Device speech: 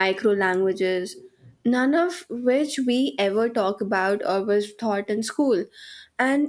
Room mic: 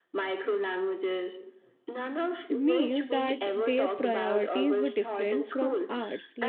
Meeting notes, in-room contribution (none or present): present